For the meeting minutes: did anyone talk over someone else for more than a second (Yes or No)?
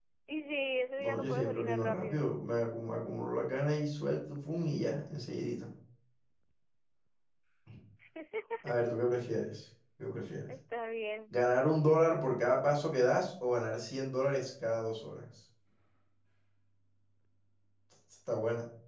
Yes